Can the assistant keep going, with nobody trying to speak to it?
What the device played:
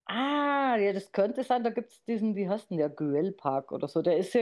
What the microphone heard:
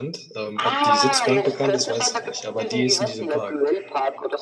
No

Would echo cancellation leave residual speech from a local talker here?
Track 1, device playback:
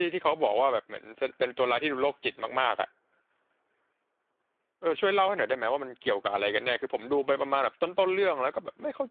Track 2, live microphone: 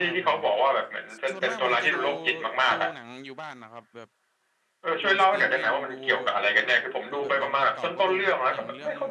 Yes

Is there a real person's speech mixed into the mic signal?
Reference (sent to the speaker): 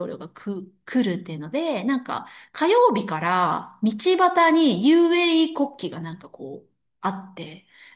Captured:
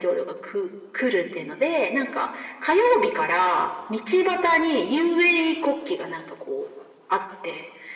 No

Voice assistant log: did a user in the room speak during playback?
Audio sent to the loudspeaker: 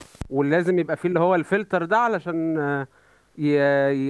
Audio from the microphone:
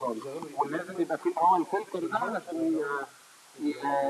Yes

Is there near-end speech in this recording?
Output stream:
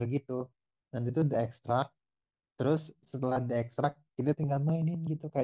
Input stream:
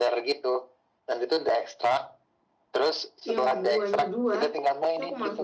Yes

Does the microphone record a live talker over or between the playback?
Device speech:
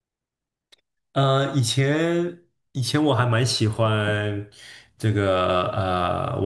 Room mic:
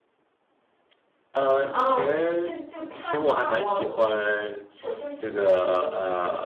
Yes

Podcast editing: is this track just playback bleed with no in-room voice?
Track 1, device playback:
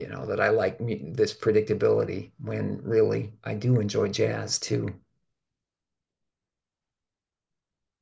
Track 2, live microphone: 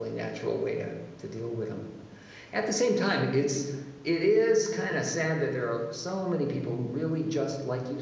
No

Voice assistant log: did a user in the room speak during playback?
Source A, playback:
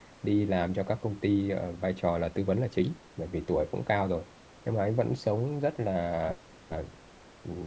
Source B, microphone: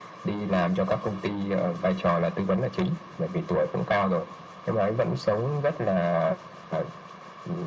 No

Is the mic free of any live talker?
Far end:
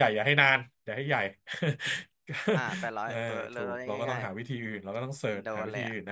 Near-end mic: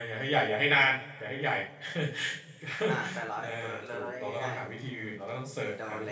Yes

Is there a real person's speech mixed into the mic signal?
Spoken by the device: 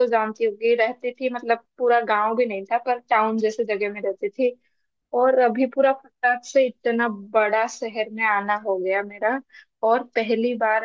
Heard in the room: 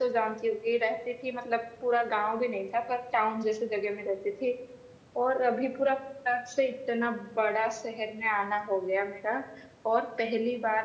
No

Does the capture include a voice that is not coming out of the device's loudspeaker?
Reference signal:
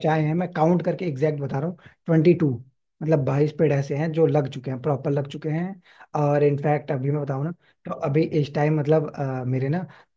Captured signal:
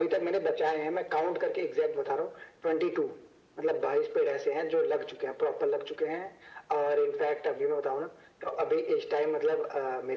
No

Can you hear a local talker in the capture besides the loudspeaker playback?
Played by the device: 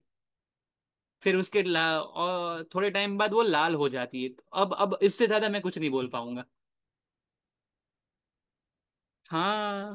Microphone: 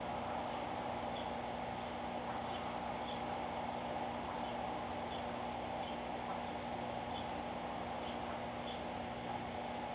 No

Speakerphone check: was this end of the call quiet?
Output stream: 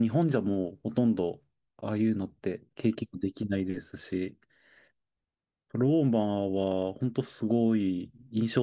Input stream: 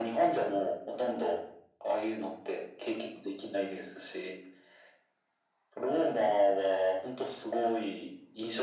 Yes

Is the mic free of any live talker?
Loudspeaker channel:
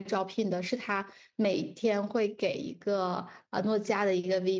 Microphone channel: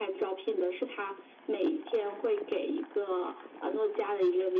Yes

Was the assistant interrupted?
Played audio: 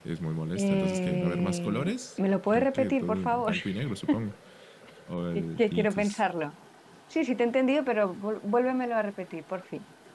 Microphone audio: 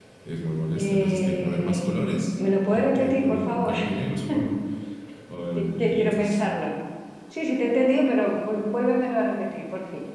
No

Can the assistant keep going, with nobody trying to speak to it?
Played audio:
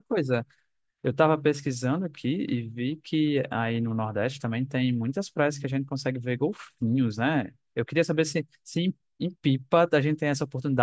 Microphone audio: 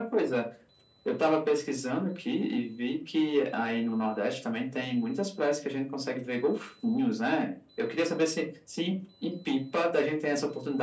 Yes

